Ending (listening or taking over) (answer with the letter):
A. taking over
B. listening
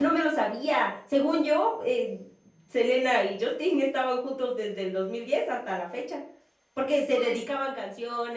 B